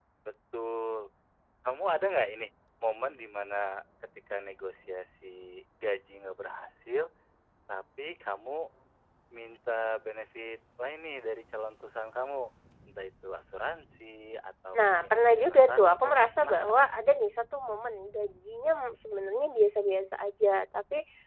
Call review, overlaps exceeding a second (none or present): present